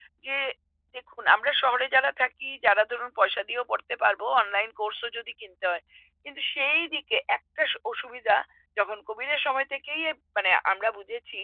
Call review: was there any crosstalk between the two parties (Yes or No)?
No